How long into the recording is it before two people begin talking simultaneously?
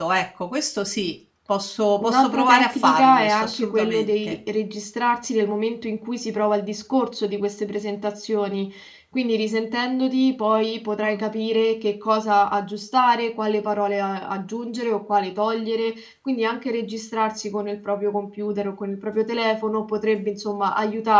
2.0 s

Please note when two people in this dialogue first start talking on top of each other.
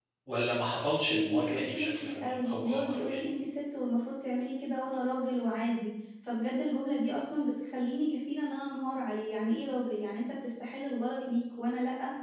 1.1 s

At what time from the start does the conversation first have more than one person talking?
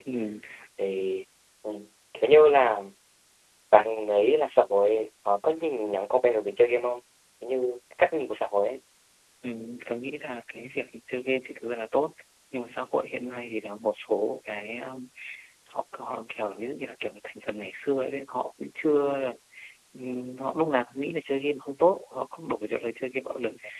none

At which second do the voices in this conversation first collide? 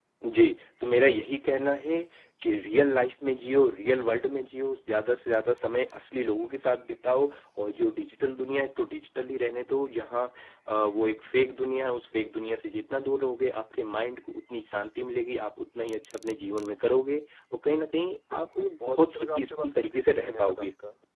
18.1 s

